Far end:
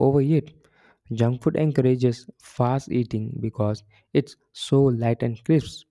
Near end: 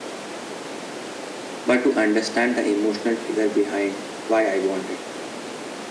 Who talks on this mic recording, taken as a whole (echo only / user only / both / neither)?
user only